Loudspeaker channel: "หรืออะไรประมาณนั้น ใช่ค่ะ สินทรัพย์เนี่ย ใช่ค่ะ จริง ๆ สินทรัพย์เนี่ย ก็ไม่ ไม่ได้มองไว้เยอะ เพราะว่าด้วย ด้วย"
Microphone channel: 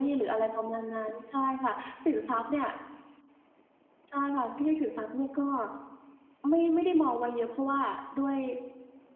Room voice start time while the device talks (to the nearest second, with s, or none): none